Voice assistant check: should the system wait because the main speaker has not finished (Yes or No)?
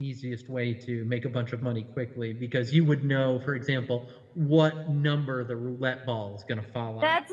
No